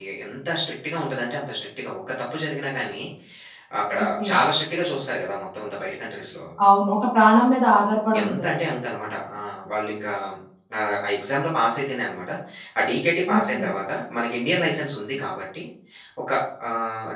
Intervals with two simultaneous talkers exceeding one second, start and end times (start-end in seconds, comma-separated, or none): none